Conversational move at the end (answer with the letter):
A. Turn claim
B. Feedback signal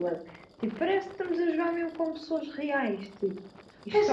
A